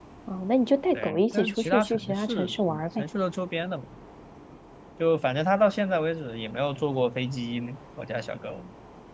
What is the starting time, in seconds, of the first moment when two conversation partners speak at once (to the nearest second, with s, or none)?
1 s